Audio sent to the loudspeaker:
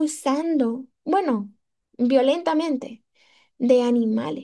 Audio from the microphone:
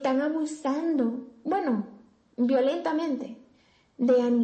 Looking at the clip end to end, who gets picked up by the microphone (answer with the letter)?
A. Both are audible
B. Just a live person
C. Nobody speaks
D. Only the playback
D